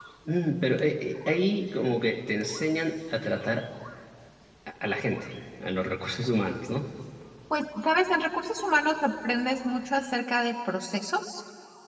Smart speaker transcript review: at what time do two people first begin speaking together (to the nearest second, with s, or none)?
none